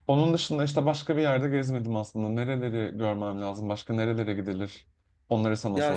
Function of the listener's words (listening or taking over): taking over